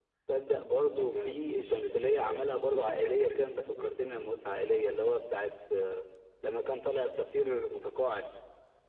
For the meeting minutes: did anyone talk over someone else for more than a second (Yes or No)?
Yes